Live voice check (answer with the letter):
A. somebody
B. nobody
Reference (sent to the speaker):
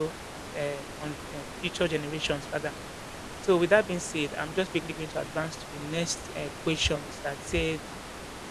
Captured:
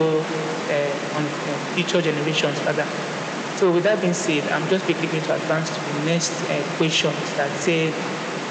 B